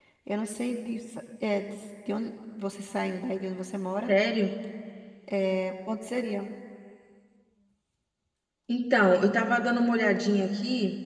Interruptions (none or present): none